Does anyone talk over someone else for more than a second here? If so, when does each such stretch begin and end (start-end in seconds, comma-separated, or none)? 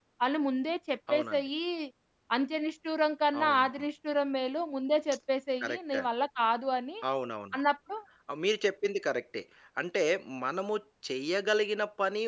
none